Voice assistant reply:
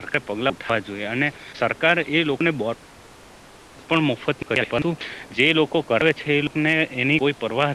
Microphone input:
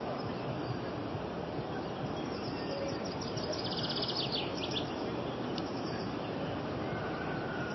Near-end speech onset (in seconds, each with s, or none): none